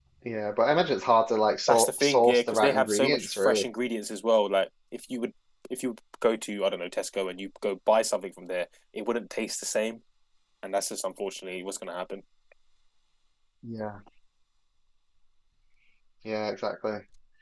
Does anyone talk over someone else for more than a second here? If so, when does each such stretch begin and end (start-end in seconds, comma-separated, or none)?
1.7-3.6